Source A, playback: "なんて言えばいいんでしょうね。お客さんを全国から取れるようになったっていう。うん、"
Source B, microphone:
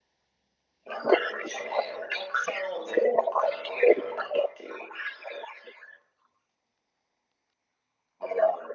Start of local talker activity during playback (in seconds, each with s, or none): none